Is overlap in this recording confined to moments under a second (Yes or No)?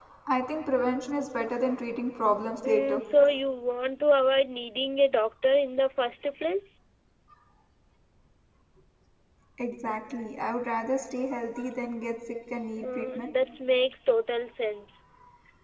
Yes